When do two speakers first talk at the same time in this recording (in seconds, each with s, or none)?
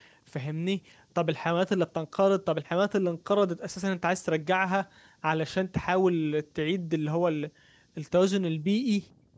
none